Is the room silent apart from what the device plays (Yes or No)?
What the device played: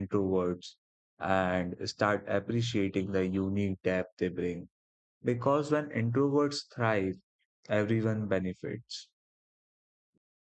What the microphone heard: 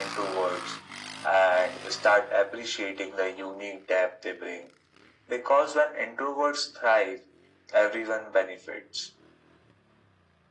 Yes